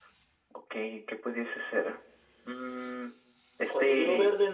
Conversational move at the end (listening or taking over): taking over